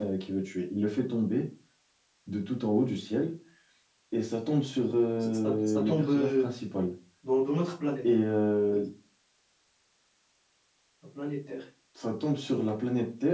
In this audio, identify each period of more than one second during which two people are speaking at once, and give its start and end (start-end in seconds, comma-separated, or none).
5.2-6.5